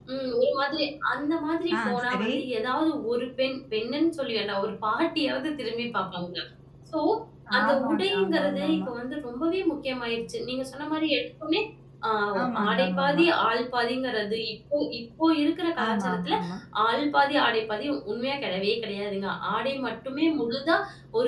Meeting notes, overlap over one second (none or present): present